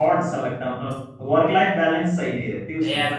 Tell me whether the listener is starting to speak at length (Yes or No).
Yes